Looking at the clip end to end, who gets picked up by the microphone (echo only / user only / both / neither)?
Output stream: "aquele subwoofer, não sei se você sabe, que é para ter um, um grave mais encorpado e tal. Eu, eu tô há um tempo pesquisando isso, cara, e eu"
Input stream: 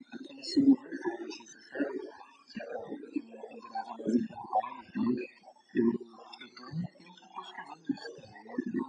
echo only